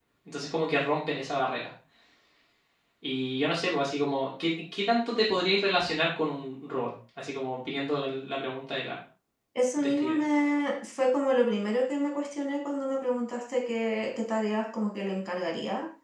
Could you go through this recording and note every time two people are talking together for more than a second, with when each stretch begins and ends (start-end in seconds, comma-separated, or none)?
none